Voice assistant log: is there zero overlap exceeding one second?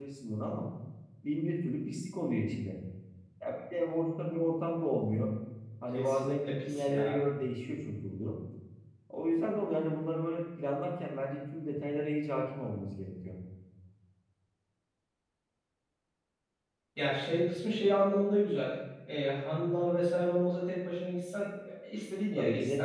No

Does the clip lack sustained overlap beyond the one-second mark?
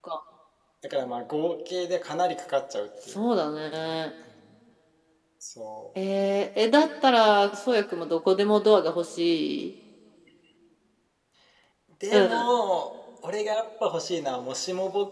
Yes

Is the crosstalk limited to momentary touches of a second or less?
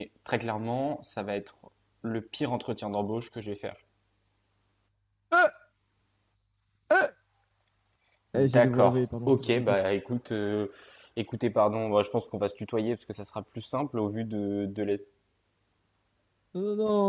No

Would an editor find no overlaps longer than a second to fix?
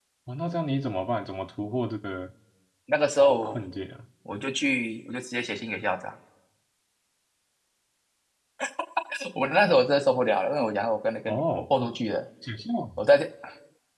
Yes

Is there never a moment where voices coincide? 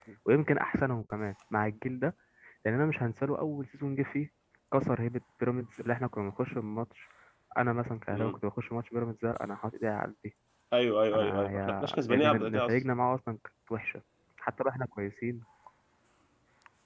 No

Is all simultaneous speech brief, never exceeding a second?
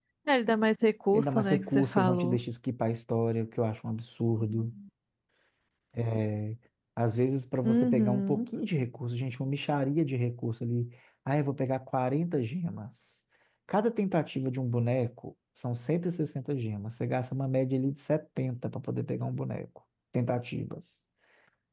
No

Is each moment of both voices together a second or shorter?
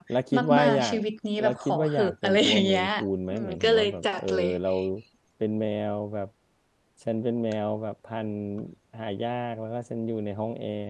No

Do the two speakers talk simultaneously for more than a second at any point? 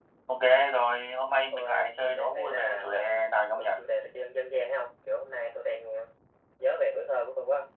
Yes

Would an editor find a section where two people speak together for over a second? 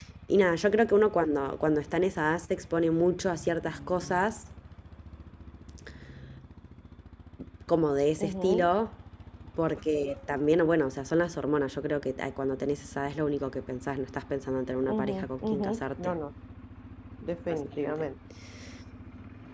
Yes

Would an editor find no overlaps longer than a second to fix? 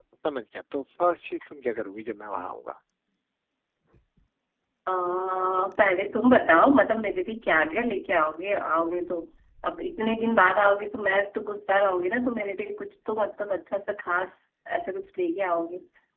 Yes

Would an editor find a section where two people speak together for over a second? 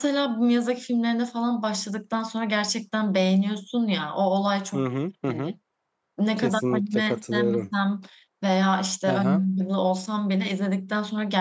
Yes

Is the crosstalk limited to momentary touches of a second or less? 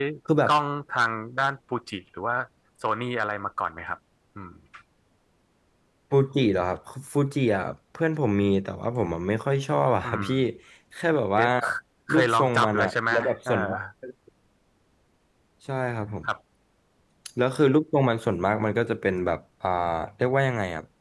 No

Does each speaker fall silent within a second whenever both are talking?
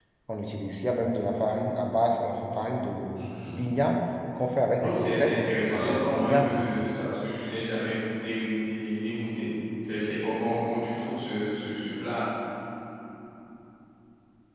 No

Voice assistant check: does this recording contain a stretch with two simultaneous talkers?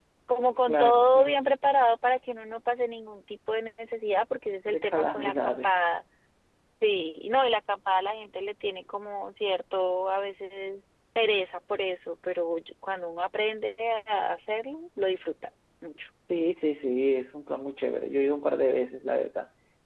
Yes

